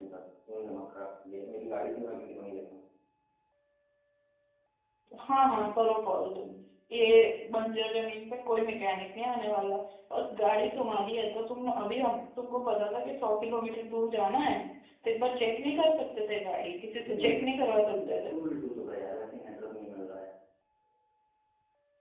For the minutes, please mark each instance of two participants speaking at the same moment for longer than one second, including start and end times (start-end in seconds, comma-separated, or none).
16.9-18.3